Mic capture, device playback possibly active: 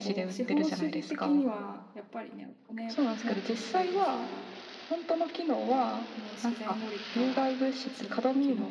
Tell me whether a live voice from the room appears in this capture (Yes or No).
Yes